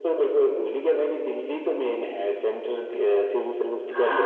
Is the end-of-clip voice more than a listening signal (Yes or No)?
Yes